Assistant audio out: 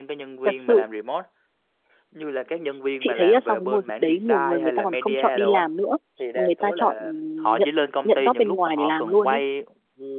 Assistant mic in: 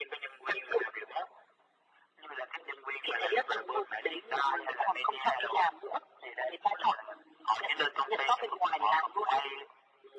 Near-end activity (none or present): none